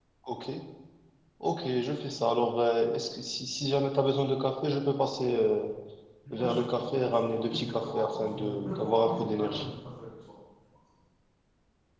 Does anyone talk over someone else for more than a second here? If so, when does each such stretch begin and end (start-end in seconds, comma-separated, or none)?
6.3-9.7